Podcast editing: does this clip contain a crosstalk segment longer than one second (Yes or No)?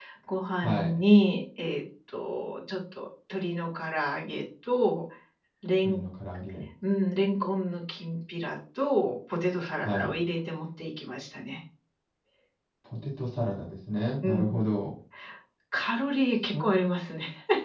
No